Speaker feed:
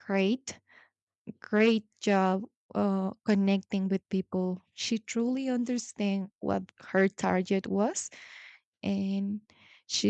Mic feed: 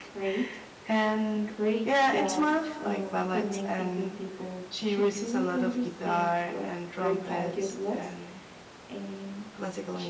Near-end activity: present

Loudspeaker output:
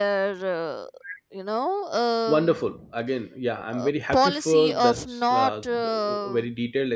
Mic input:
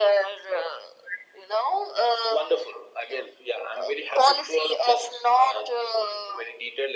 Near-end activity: none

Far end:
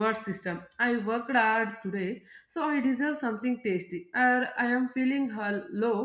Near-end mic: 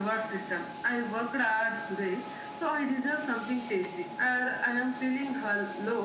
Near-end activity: none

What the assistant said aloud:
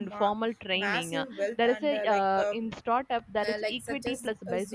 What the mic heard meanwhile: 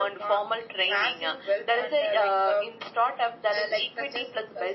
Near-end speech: none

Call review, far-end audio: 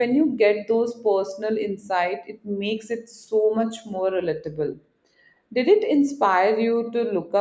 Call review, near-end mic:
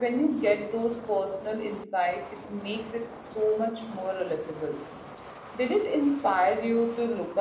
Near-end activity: none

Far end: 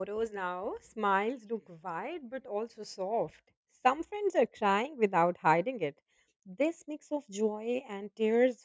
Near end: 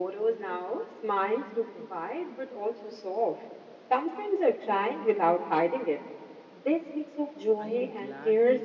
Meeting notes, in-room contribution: present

